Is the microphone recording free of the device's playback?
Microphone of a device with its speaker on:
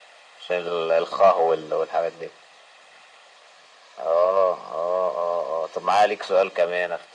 No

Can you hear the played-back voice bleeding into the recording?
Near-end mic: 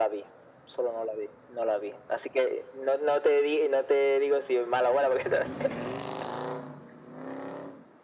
Yes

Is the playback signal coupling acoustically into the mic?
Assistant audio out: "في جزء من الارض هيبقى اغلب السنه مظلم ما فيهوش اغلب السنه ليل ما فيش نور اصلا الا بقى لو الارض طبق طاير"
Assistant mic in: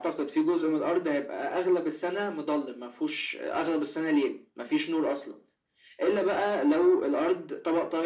Yes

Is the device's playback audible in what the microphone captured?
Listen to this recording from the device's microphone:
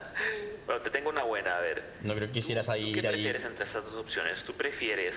Yes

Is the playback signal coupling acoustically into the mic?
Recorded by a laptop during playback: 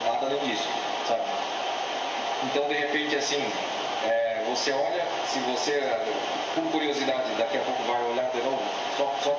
Yes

